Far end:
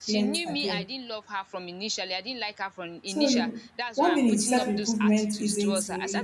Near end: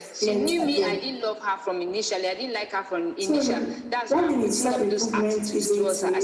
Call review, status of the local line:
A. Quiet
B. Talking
A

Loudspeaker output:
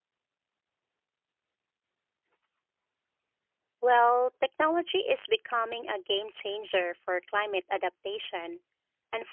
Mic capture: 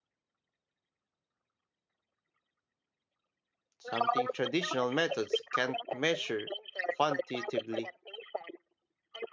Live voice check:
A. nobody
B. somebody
B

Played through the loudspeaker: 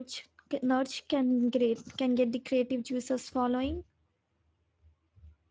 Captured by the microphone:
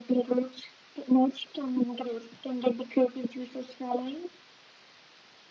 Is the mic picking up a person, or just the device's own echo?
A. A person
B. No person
B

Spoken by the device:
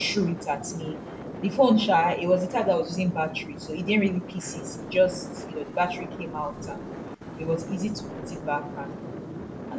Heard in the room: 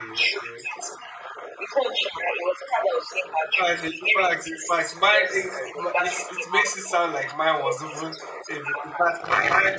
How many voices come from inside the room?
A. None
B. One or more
B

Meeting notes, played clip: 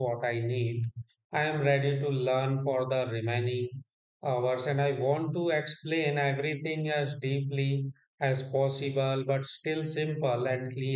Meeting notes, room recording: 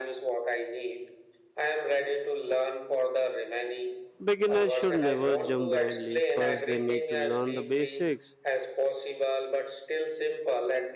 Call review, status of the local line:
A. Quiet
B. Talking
B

